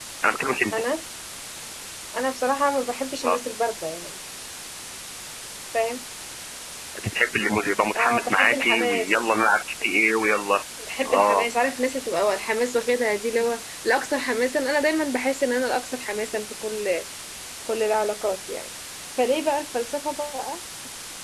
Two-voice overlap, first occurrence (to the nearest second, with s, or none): 8 s